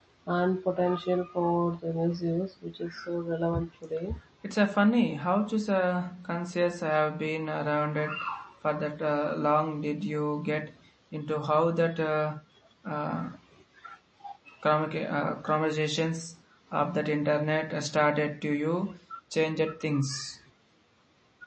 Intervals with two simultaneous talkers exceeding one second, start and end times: none

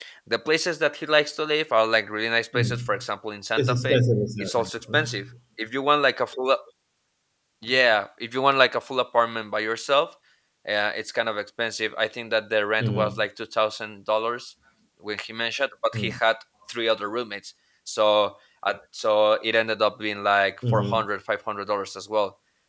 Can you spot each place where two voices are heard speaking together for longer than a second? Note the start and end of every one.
none

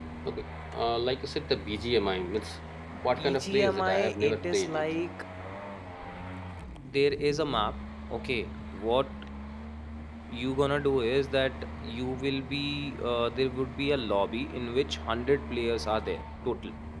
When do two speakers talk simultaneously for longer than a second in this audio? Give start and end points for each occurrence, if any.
3.2-4.8

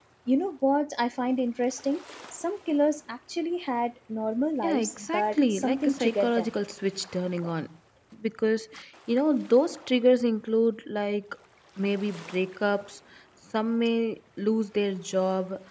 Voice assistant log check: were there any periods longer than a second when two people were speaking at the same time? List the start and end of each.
4.6-6.5

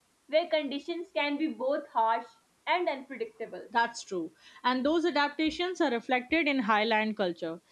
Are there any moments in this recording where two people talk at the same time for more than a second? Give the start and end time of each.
none

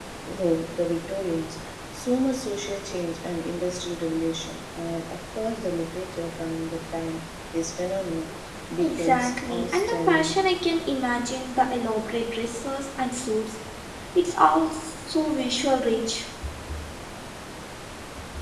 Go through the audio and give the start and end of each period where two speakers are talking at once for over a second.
8.8-10.3

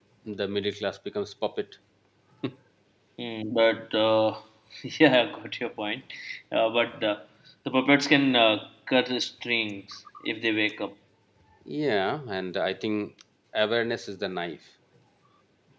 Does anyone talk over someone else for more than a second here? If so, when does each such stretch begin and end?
none

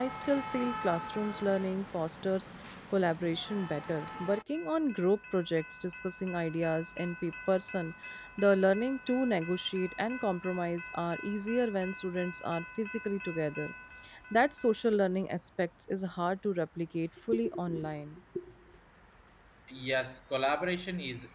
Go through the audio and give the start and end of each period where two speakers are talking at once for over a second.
none

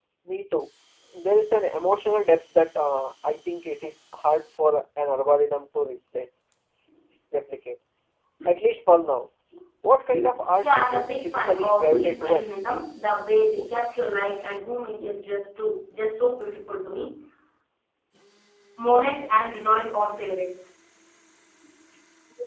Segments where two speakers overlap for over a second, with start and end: 10.6-12.6

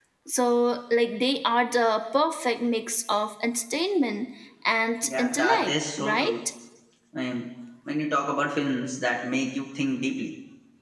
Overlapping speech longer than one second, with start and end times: 5.0-6.3

